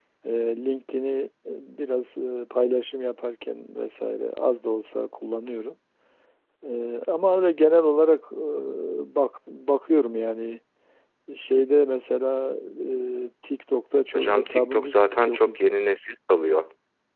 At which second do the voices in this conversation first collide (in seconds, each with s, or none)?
14.1 s